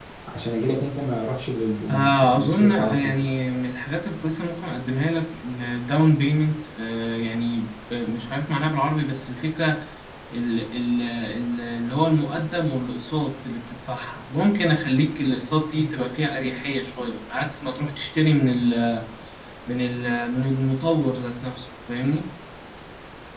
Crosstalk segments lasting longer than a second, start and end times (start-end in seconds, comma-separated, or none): 1.9-3.3